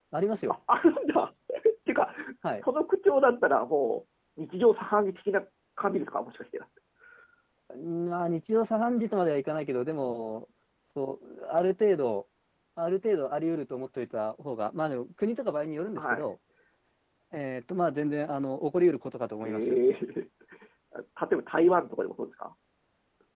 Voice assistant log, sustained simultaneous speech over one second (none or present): none